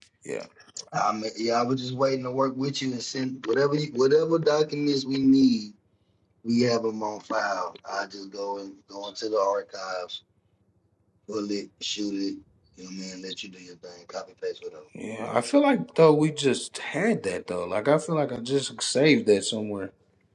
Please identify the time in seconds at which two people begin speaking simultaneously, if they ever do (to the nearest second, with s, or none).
none